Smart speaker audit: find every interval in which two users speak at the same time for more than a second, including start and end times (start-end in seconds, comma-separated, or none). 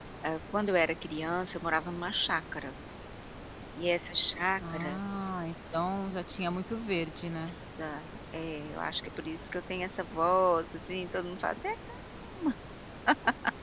none